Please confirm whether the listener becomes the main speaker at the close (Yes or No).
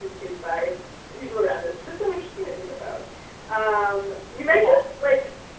No